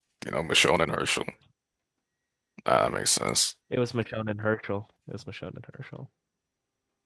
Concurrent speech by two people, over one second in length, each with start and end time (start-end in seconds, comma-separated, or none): none